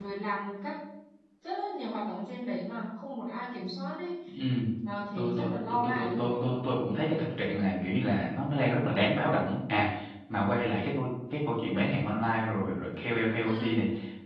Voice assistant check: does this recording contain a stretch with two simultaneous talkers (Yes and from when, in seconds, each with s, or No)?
Yes, from 5.2 s